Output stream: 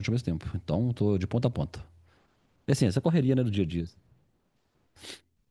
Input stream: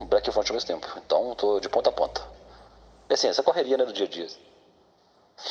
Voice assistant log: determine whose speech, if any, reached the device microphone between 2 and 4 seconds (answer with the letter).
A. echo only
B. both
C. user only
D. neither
A